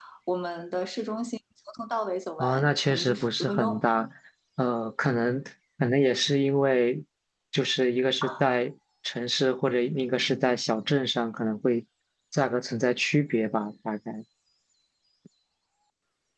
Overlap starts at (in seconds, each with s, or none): 2.4 s